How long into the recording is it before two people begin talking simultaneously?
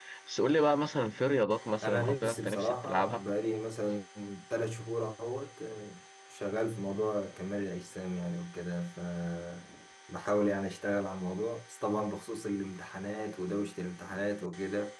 1.8 s

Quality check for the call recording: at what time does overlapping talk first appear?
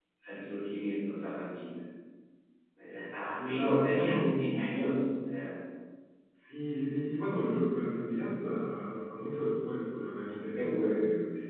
3.4 s

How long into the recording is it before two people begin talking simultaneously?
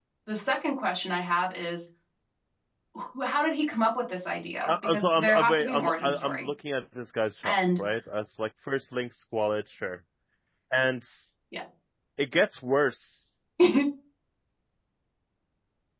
4.6 s

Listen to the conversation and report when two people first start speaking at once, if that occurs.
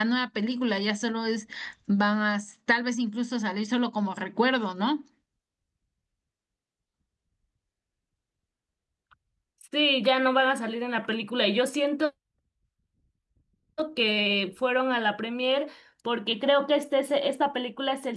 none

